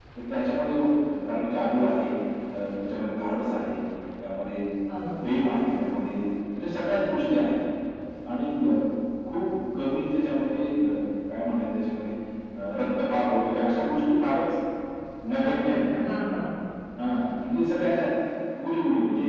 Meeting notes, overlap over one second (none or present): none